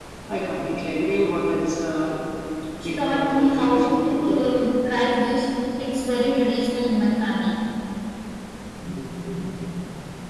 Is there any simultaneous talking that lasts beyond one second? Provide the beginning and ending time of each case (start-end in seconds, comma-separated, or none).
2.8-4.4